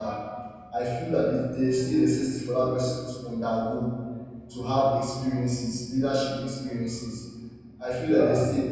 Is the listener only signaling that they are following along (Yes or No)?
Yes